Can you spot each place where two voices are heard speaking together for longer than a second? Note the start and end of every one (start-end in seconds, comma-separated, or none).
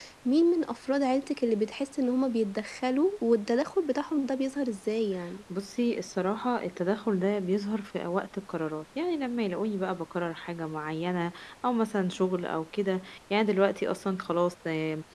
none